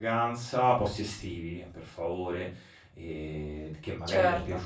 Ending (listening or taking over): listening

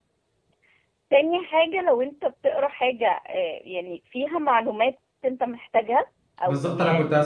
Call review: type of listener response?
taking over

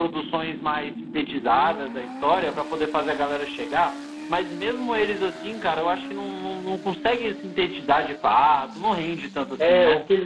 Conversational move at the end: taking over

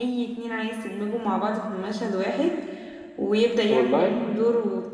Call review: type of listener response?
listening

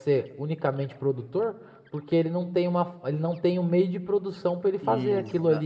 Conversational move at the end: taking over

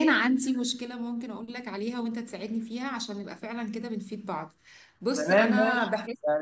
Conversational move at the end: taking over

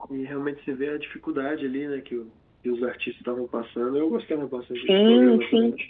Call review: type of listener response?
taking over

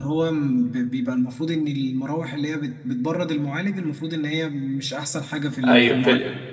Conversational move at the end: taking over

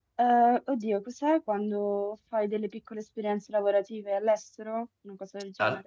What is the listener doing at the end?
taking over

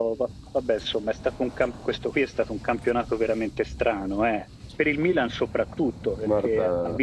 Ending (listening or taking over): listening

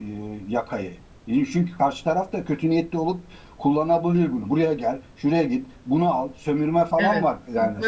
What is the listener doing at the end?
taking over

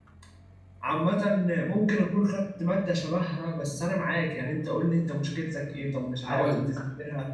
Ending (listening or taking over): listening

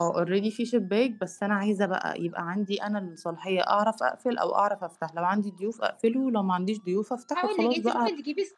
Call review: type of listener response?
taking over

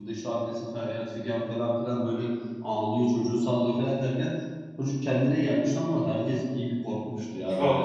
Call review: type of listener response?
taking over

